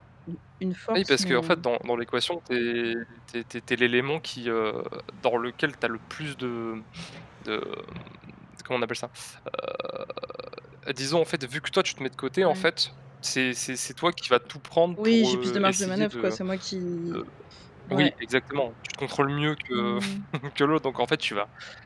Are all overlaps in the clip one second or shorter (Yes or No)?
No